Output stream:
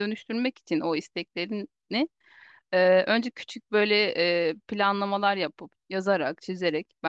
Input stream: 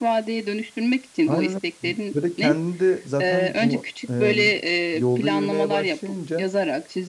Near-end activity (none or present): present